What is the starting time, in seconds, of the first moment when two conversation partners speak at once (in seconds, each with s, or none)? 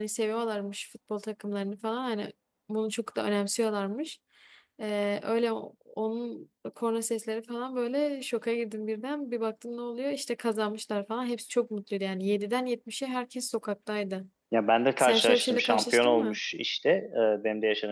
15.0 s